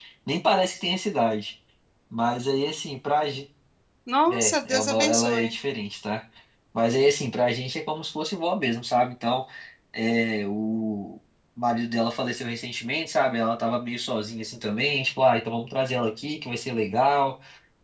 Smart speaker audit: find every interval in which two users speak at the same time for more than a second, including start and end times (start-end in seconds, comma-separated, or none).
4.3-5.5